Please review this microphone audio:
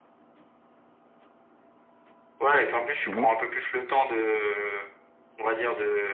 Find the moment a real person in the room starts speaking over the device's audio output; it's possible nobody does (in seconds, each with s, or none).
3.0 s